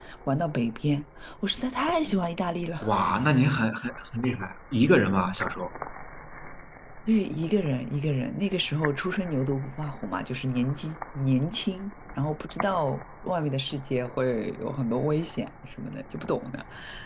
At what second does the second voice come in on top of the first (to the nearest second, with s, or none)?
none